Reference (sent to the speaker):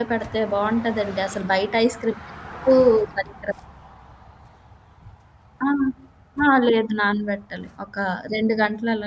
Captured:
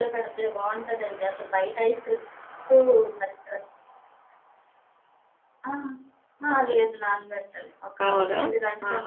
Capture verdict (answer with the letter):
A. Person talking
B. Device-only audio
A